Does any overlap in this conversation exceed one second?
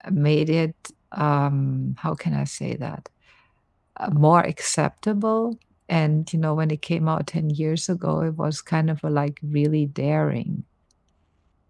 No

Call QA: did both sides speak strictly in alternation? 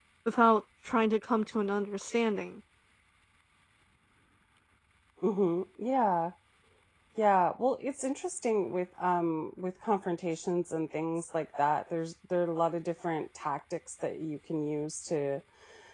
Yes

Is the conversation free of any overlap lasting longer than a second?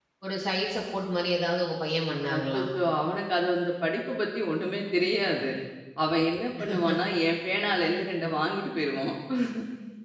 Yes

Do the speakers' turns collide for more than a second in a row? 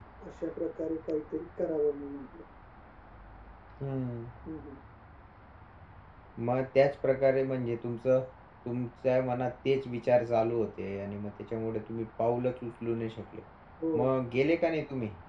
No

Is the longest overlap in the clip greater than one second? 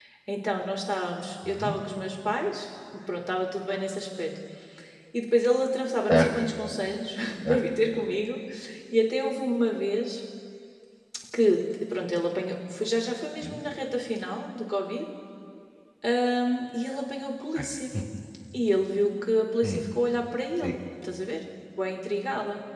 No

